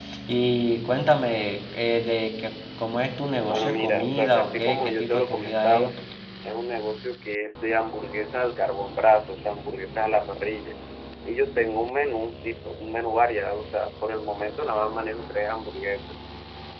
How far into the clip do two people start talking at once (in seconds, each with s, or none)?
3.5 s